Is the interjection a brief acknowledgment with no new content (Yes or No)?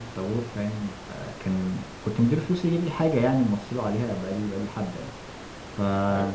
Yes